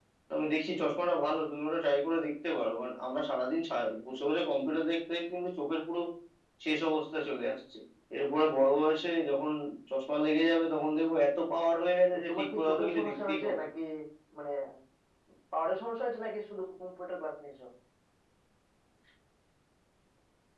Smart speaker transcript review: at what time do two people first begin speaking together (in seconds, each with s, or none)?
12.1 s